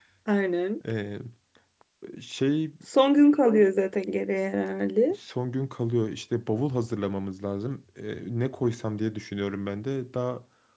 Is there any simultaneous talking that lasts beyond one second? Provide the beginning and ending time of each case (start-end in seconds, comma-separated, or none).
none